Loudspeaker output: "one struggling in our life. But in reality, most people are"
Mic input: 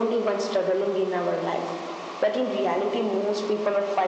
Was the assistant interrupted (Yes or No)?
No